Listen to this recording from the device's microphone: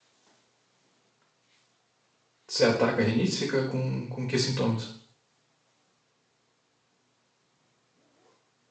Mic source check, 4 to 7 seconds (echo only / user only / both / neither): user only